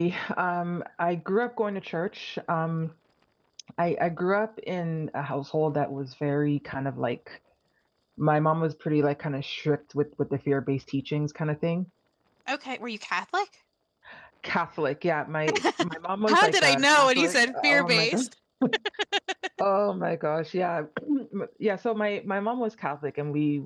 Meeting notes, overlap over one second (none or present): present